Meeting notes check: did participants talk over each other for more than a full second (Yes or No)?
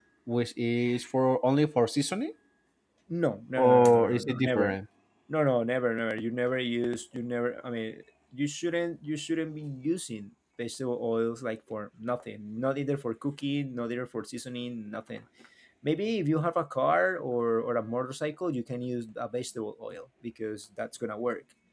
Yes